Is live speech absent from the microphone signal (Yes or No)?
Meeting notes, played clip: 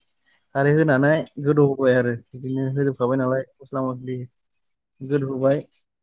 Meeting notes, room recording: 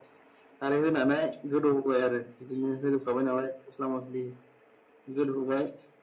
Yes